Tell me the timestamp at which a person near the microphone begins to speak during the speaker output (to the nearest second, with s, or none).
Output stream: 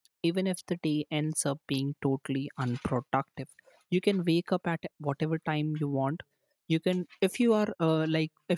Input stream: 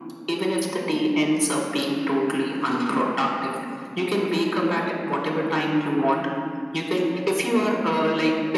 none